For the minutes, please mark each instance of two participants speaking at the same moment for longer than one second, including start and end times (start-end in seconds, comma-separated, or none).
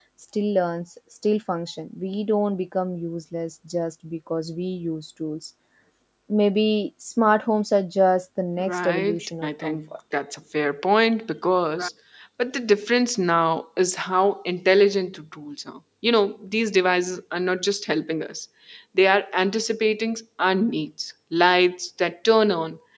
8.6-9.8